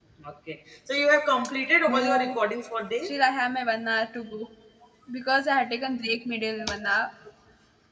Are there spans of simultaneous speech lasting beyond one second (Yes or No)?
No